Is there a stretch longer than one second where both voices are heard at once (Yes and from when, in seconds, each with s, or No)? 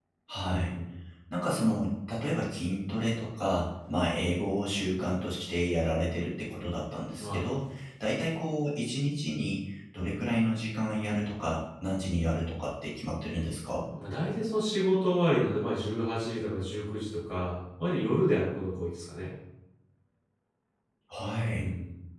No